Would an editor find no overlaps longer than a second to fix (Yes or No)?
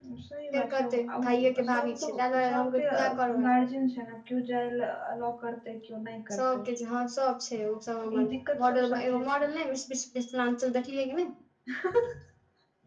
No